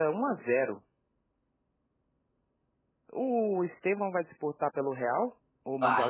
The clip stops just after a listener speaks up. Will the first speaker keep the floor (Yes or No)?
No